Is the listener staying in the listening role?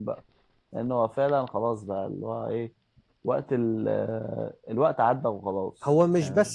No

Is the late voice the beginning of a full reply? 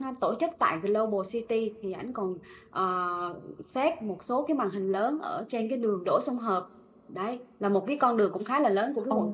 Yes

